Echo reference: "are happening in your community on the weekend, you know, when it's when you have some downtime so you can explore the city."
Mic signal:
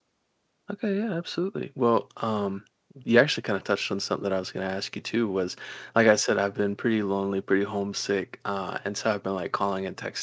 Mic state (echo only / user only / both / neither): user only